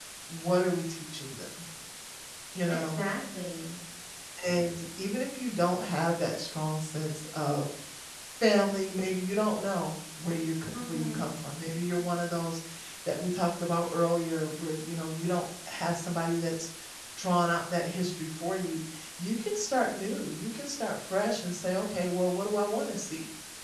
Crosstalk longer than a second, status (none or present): none